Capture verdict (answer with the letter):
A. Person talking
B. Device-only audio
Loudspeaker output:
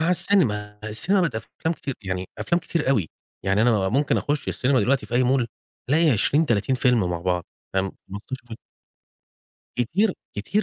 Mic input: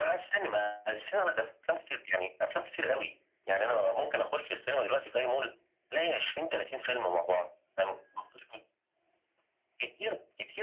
B